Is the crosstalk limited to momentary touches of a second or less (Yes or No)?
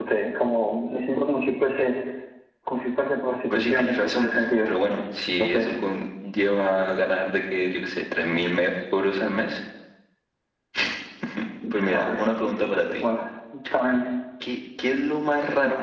No